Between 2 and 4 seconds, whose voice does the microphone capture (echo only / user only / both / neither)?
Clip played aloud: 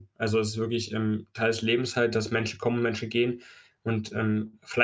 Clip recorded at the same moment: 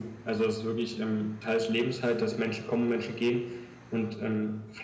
echo only